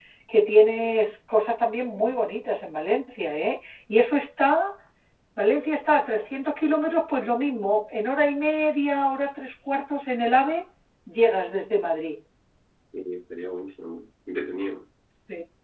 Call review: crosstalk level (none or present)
none